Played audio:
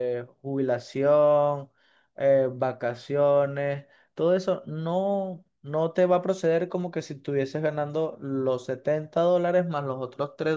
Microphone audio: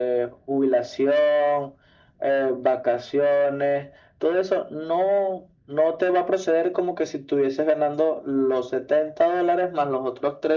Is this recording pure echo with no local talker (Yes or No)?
Yes